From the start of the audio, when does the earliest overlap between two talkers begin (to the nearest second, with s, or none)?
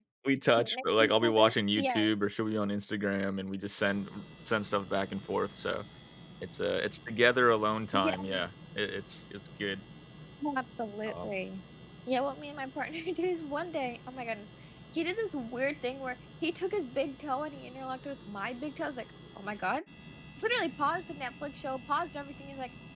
1 s